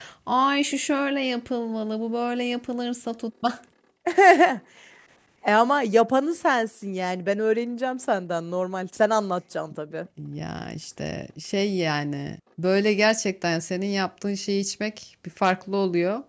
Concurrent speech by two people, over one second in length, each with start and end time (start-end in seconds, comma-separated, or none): none